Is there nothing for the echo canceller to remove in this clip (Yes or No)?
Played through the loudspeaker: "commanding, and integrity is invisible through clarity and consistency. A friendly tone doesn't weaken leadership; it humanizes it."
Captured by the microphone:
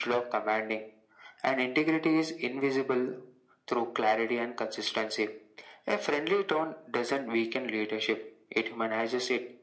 No